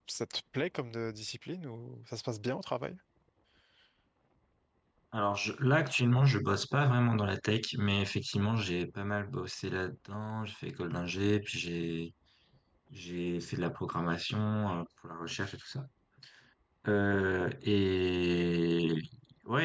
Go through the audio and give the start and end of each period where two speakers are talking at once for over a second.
none

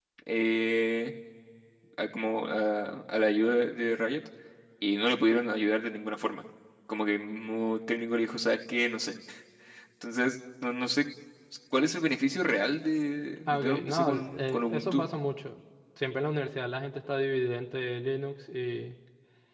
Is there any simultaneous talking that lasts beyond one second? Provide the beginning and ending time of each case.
13.5-15.1

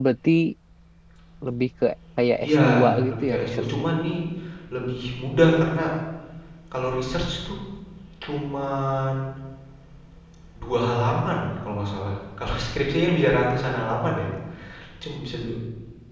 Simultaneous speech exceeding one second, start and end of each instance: 2.4-3.6

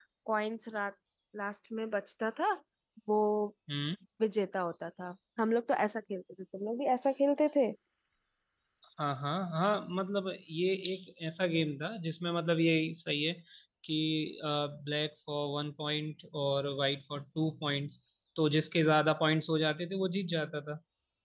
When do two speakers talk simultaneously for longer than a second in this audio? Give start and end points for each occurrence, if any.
none

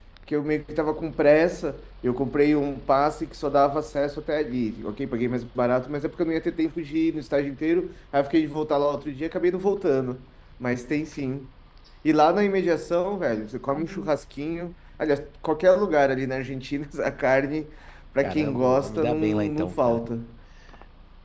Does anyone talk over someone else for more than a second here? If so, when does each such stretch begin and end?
18.2-20.0

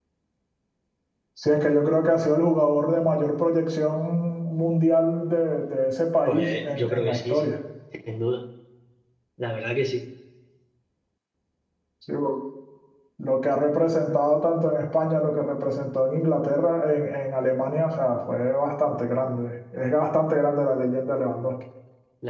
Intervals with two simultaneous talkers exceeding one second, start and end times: 6.3-7.5

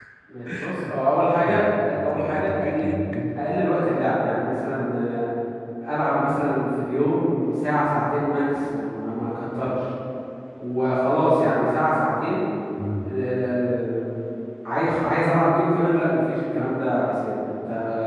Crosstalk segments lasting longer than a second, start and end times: 1.5-2.8

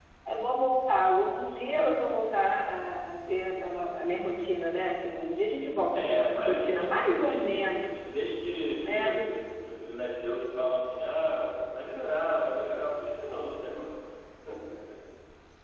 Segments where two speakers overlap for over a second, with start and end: 5.9-7.6

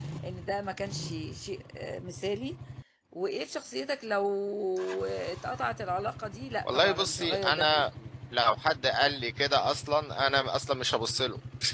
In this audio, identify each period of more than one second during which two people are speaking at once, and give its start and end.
6.7-7.8

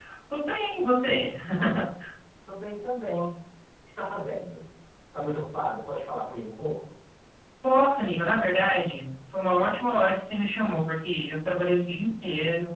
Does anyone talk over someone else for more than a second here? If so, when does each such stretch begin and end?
none

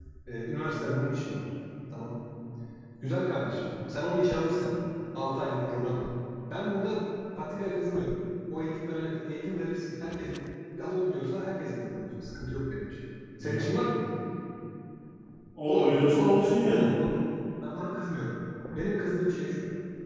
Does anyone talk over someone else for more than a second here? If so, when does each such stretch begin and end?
15.7-16.9

